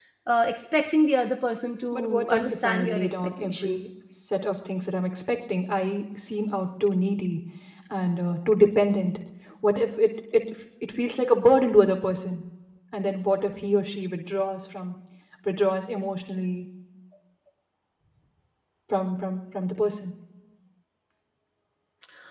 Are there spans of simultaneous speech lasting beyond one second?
Yes, from 1.9 s

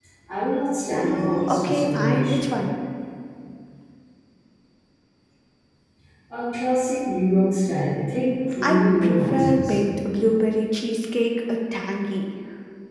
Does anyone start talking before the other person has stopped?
Yes, from 1.0 s

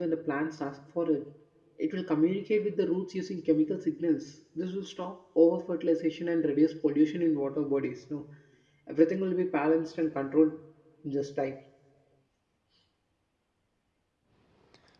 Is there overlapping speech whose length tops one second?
No

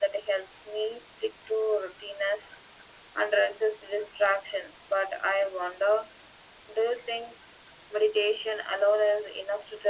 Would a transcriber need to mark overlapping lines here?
No

